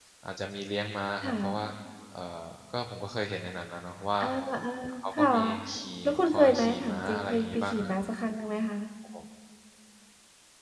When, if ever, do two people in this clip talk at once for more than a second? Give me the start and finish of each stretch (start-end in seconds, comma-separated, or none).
6.0-8.0